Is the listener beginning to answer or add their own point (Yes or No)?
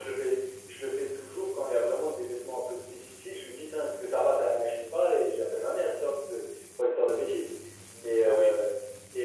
No